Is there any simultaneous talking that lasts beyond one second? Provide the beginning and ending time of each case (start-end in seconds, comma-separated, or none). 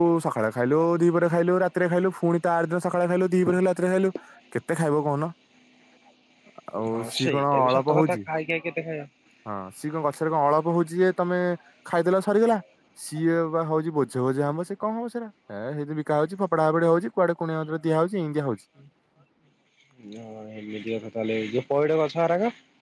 6.9-8.2